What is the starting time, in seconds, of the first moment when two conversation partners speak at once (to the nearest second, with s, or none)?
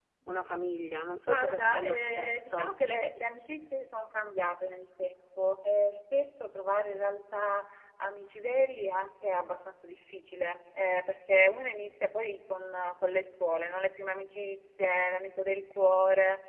1 s